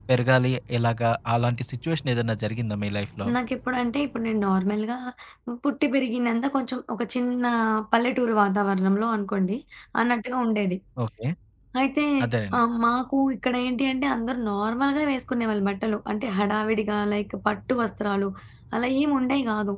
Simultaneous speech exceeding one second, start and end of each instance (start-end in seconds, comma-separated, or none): none